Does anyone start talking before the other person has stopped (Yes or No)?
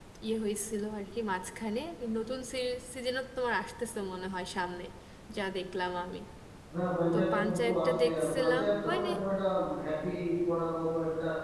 Yes